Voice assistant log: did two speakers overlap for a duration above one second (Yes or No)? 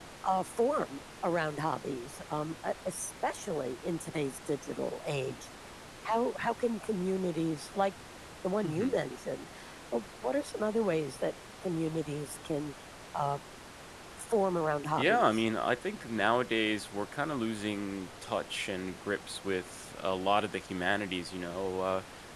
No